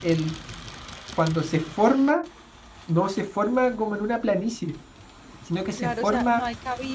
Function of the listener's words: taking over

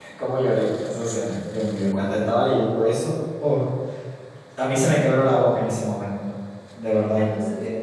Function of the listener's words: taking over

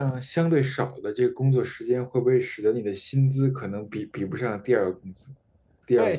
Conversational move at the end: taking over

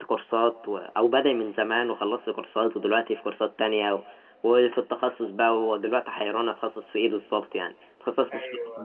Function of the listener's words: listening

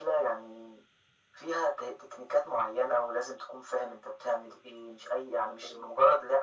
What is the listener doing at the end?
listening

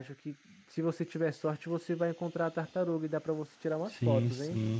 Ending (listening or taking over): taking over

